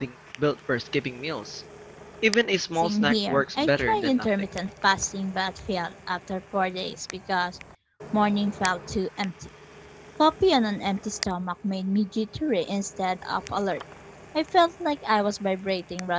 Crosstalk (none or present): present